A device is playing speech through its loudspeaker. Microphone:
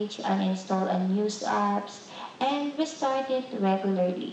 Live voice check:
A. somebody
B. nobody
B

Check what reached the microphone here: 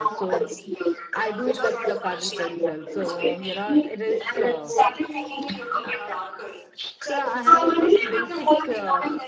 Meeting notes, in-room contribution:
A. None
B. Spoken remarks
B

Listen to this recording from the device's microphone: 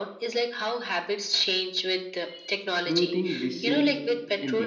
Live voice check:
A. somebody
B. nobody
A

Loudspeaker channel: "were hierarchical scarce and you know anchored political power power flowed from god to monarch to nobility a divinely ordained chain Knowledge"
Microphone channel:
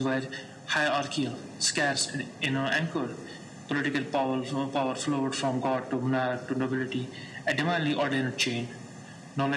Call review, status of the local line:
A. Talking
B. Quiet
B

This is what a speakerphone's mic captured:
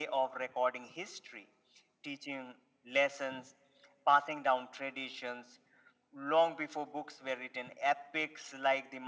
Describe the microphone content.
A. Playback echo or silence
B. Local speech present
A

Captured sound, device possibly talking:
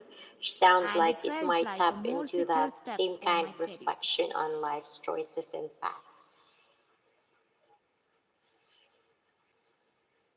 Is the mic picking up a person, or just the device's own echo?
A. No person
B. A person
B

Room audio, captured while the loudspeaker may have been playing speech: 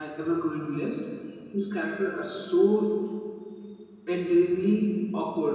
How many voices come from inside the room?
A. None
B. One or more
B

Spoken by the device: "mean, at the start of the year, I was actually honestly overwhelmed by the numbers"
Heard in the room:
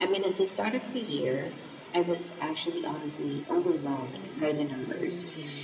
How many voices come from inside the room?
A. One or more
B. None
A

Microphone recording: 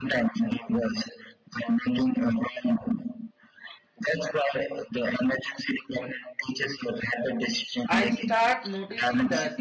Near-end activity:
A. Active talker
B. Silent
A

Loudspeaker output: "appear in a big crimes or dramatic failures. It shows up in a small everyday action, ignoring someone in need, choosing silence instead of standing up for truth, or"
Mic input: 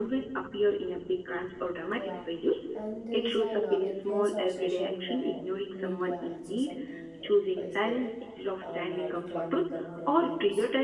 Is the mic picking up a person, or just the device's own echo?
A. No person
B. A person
B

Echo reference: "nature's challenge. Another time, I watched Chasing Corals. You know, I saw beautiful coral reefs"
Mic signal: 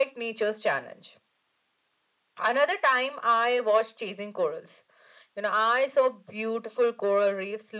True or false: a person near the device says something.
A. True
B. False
B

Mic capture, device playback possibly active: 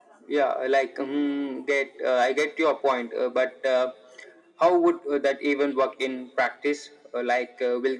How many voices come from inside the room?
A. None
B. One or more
A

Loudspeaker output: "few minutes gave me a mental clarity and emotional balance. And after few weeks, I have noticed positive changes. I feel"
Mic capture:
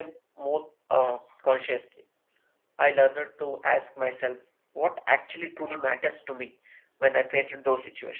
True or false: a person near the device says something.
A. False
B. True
B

